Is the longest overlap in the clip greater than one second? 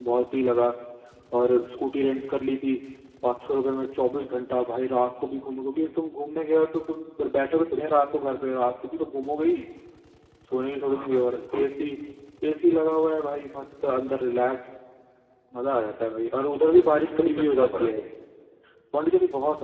Yes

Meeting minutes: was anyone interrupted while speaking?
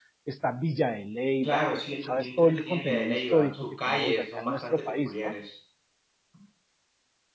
Yes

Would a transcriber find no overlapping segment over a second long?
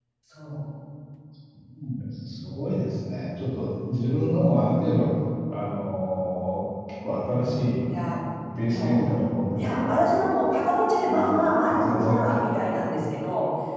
No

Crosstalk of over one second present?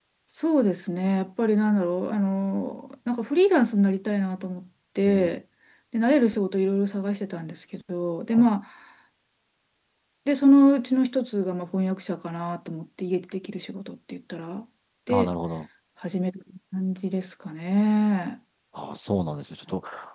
No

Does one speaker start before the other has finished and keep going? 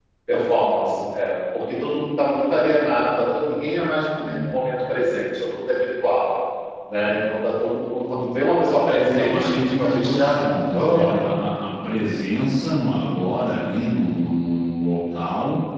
Yes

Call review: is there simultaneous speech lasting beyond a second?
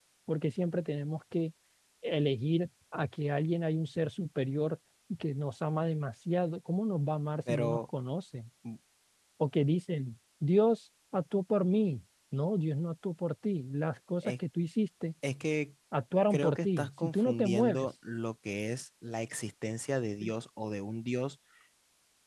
Yes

